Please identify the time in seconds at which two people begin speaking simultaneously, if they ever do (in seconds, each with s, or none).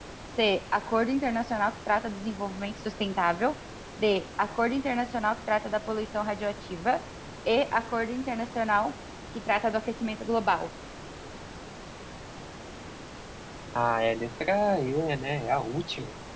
none